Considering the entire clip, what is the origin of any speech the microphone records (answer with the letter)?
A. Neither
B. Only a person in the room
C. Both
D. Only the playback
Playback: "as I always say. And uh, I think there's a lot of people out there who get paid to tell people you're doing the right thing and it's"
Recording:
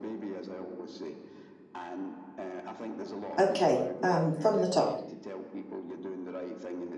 C